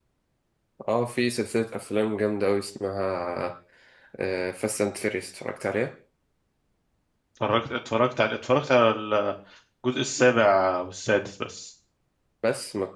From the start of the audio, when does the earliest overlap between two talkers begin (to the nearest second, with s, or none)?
none